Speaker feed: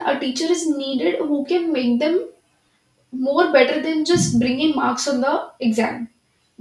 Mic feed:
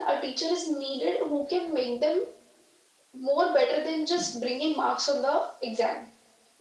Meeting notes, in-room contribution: none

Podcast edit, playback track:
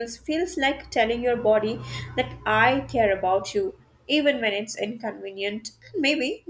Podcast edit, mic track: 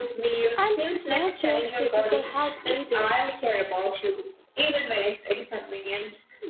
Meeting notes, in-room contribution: present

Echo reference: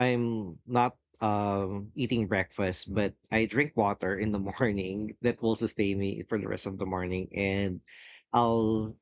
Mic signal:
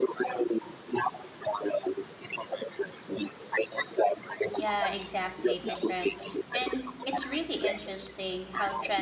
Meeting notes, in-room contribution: present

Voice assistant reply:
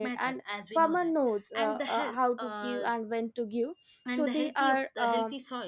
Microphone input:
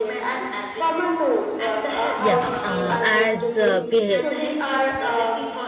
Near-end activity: present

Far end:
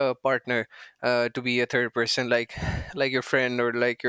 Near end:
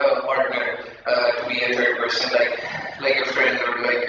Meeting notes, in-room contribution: none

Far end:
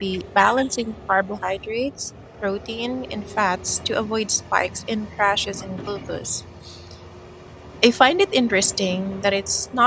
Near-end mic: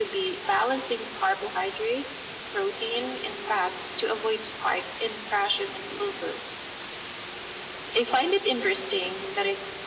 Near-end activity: none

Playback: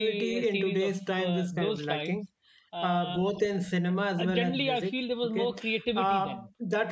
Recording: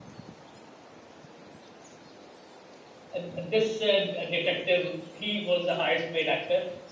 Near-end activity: present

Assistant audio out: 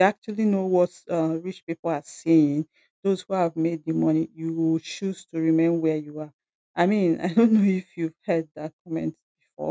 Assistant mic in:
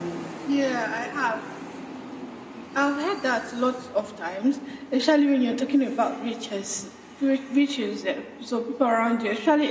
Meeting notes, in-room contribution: present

